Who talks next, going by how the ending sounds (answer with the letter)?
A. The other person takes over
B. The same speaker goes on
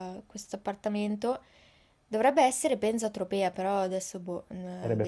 A